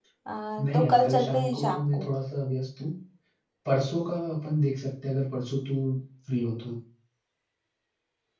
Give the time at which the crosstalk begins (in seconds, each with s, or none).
0.7 s